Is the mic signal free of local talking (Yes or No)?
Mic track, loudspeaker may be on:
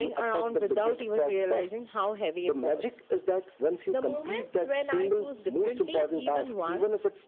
Yes